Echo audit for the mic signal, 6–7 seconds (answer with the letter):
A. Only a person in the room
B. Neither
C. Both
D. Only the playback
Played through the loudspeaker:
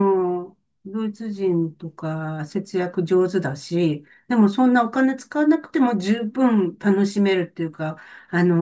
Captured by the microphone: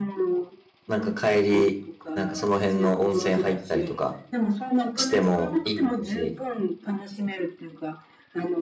C